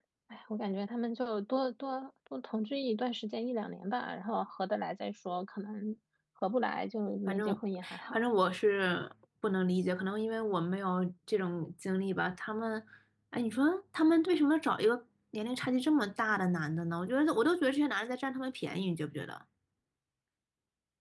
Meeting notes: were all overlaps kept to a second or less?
Yes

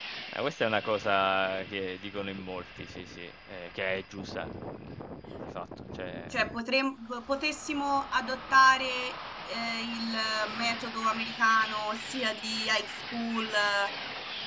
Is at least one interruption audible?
No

